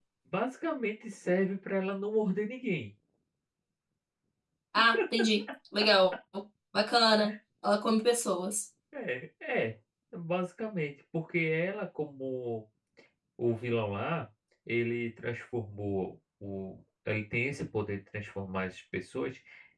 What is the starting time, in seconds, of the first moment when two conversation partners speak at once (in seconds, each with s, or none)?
none